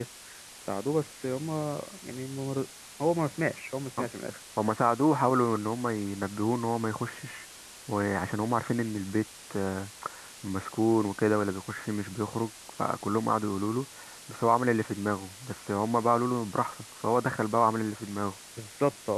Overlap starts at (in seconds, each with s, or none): none